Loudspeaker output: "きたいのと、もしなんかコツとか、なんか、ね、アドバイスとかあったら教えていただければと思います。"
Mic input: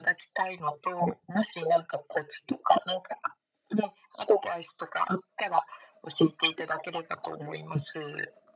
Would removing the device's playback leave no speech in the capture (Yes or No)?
Yes